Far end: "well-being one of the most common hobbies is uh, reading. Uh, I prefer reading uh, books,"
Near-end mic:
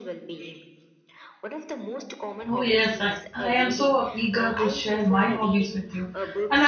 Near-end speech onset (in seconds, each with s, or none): 2.5 s